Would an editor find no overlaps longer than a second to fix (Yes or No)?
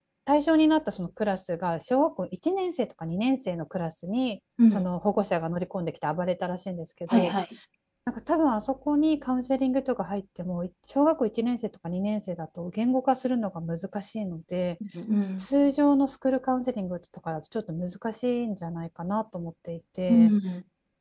Yes